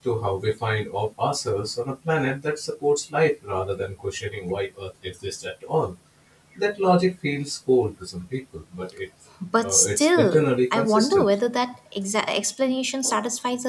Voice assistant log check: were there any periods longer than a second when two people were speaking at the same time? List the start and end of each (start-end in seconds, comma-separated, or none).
9.6-11.3